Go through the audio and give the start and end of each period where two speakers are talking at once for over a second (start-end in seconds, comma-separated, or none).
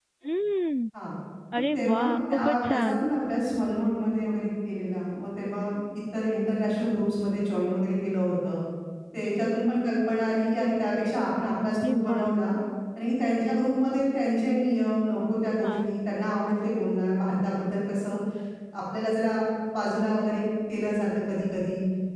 1.7-3.0